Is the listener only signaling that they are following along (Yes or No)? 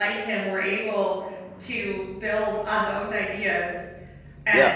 Yes